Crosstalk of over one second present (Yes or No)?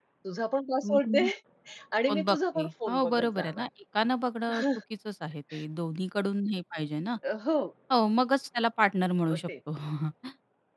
Yes